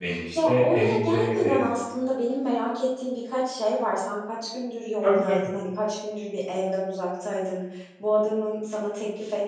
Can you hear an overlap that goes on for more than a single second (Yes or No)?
Yes